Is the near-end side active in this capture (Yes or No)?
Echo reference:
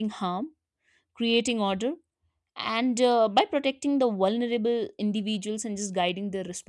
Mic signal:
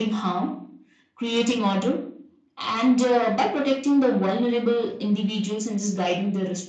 No